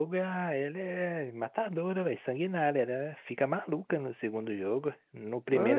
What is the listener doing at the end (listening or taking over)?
taking over